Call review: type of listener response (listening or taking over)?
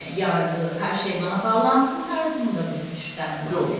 taking over